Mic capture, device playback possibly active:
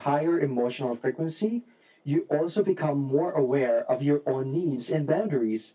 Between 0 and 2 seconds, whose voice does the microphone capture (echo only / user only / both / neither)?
echo only